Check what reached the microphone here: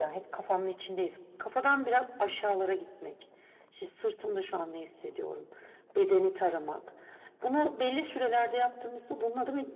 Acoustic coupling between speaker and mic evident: Yes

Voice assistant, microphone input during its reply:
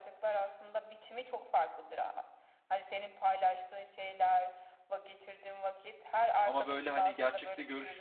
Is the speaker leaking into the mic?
Yes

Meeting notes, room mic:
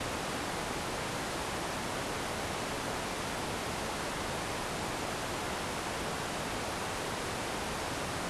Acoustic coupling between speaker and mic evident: No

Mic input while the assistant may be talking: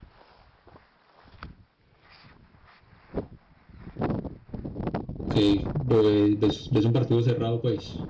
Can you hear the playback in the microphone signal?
No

